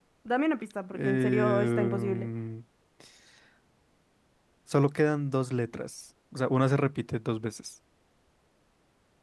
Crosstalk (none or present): present